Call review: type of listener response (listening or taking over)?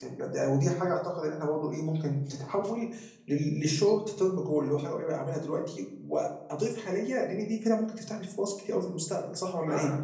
taking over